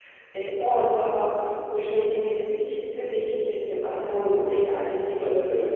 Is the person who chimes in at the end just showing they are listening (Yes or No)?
No